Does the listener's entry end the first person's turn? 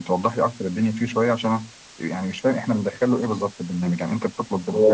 Yes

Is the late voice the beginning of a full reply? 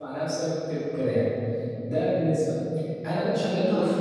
No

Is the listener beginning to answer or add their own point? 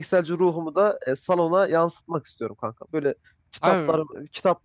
No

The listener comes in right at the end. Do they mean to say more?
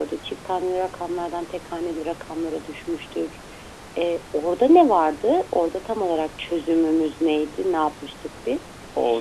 Yes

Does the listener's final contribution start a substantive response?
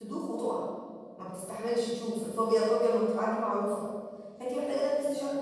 No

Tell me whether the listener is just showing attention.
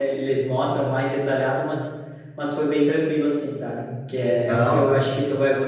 Yes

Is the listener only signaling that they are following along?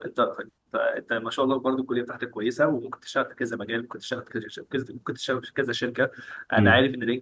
Yes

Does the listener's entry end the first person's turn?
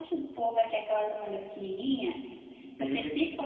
No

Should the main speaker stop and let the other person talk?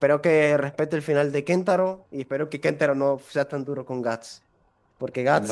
Yes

